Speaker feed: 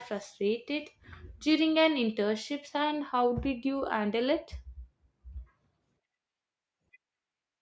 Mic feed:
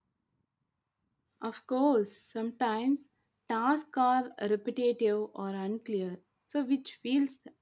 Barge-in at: 1.4 s

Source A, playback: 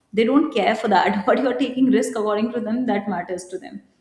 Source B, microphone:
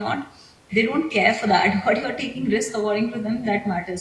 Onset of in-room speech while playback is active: none

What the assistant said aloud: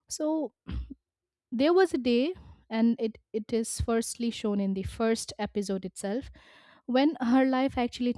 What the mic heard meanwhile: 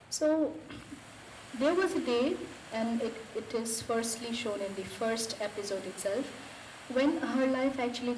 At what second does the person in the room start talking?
none

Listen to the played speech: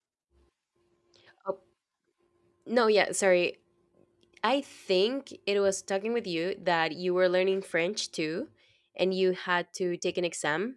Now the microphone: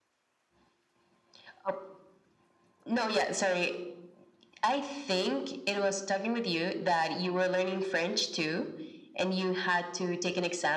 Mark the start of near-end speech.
none

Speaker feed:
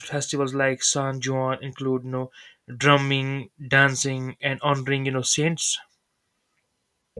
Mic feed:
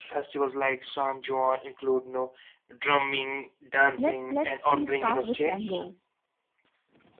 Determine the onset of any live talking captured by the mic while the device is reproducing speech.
4.0 s

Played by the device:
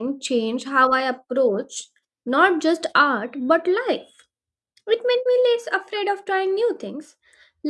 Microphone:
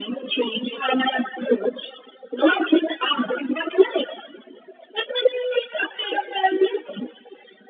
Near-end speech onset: none

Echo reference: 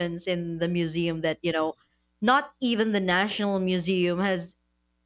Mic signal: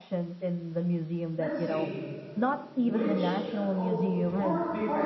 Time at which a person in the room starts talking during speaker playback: 1.4 s

